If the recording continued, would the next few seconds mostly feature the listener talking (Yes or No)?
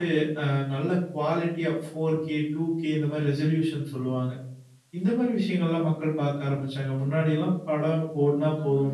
Yes